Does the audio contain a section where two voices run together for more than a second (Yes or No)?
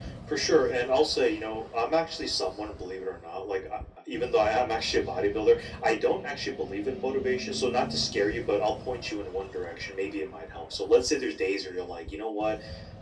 No